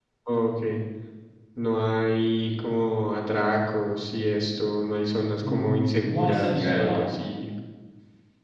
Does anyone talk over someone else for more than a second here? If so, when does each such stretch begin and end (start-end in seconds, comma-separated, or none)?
5.4-7.0